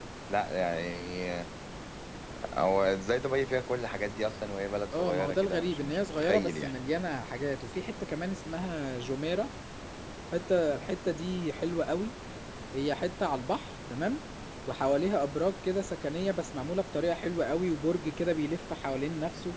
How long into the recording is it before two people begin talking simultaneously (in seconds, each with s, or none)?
4.9 s